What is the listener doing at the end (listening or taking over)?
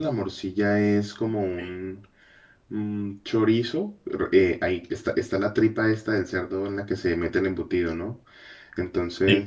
listening